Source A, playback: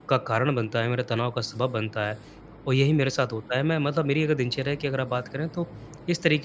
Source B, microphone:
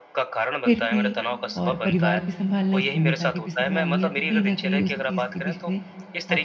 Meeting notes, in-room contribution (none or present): present